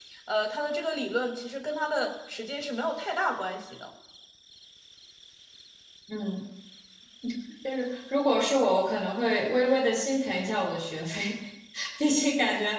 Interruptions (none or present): none